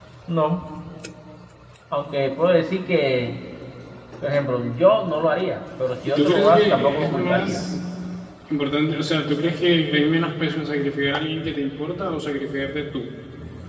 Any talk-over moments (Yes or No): Yes